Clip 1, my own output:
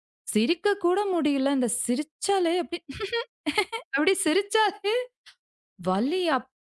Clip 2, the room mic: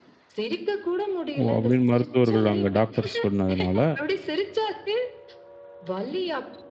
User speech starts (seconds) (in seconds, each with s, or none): 1.4 s